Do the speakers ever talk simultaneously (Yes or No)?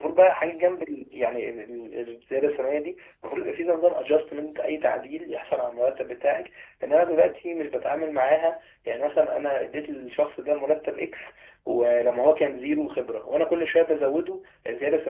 No